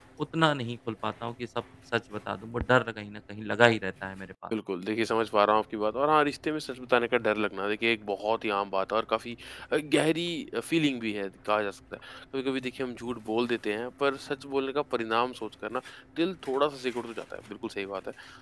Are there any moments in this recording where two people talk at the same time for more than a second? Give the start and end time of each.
none

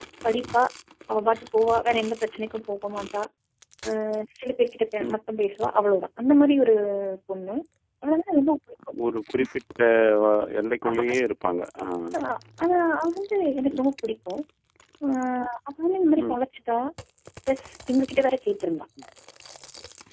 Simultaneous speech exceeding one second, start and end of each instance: none

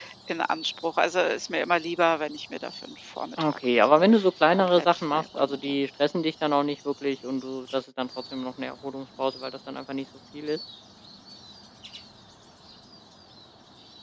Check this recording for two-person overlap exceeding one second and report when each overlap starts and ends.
4.5-5.8

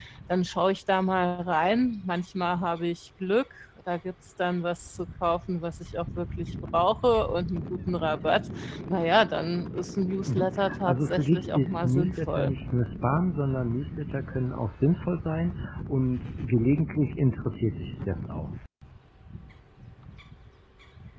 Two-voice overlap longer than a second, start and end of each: 10.2-12.5

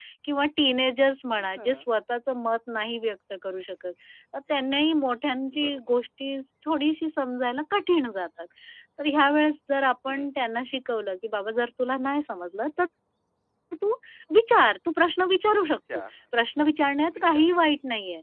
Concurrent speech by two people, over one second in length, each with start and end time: none

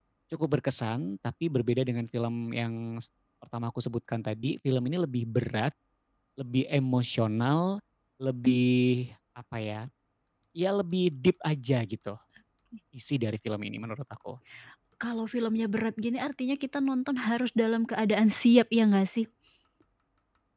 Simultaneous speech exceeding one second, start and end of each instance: none

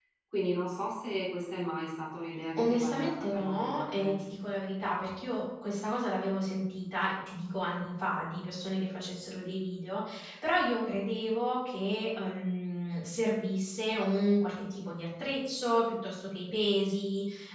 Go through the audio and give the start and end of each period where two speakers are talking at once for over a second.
2.6-4.2

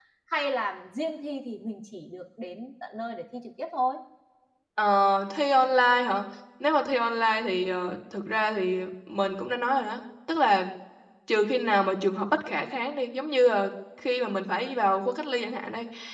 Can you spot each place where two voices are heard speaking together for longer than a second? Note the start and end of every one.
none

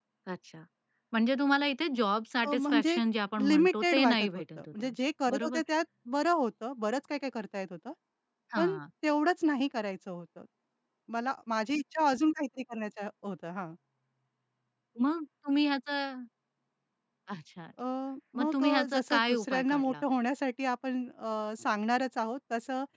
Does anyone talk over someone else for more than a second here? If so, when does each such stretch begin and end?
3.5-4.9, 18.4-20.0

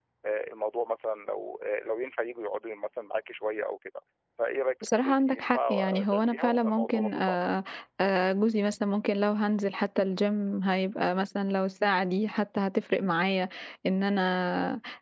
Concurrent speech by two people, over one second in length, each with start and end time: 4.8-7.4

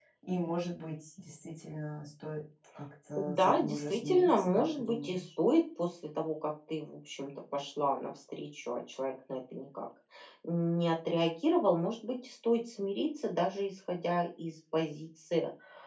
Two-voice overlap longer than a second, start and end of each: 3.2-5.2

